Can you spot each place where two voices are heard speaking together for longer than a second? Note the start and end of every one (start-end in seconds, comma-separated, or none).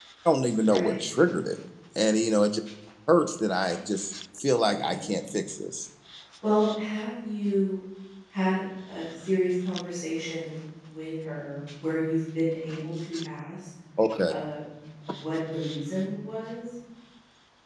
none